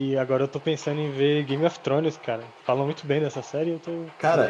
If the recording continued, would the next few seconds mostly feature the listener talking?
Yes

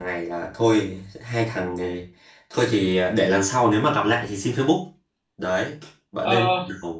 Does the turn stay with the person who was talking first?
Yes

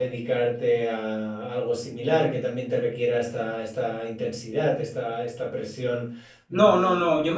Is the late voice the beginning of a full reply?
Yes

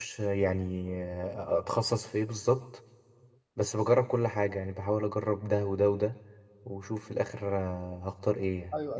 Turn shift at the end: Yes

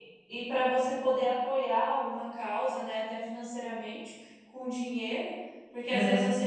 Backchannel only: Yes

